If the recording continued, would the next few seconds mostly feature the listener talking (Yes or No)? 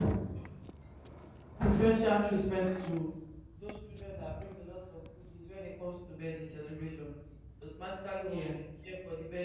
No